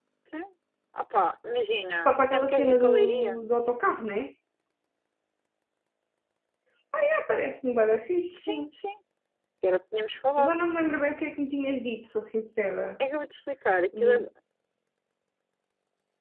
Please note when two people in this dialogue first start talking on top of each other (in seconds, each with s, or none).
2.0 s